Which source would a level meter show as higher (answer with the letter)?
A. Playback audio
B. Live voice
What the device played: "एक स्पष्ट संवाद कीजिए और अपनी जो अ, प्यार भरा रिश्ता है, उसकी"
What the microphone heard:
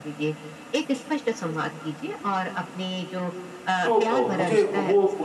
B